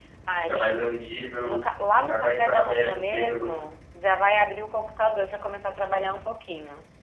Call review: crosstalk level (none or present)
present